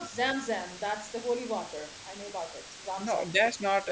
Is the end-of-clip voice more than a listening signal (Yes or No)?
Yes